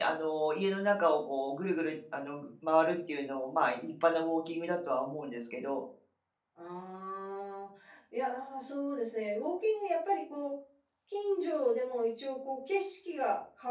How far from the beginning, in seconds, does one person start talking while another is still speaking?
none

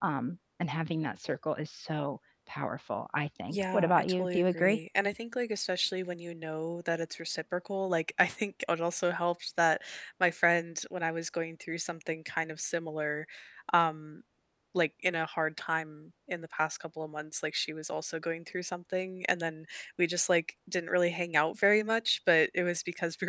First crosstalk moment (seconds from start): 3 s

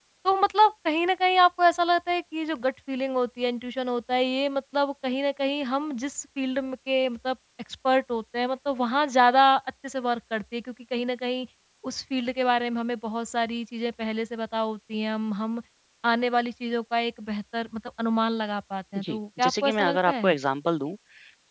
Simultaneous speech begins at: 19 s

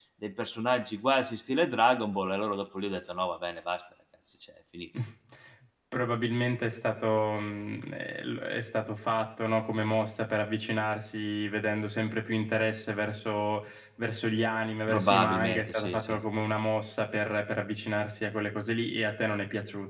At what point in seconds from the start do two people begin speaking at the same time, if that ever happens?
15 s

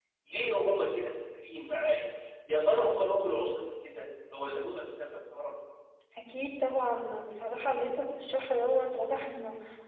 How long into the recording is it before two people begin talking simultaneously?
none

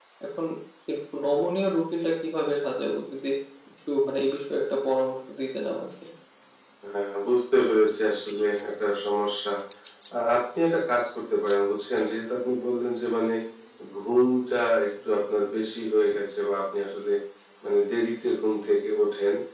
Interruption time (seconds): none

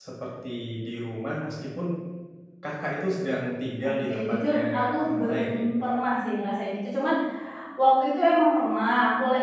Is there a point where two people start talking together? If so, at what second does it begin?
4 s

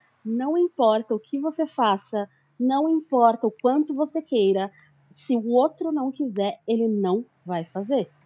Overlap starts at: none

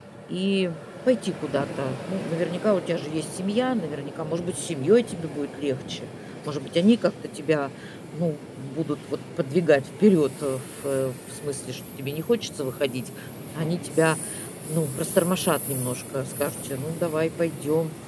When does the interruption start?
none

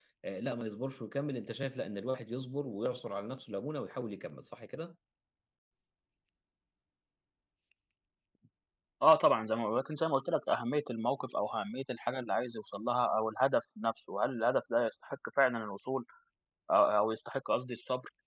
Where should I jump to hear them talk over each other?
none

